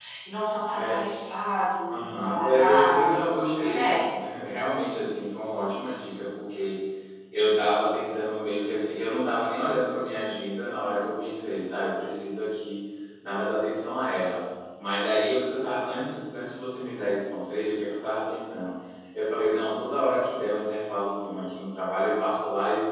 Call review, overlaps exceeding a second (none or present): present